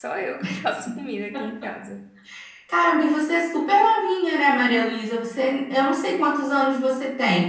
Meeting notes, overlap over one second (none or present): none